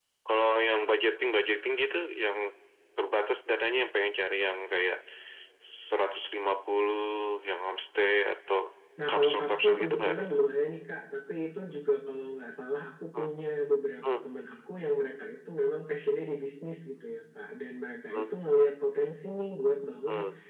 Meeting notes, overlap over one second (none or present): present